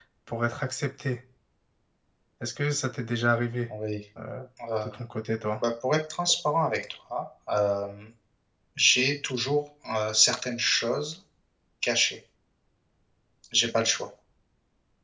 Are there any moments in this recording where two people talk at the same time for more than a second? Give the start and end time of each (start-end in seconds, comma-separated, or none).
none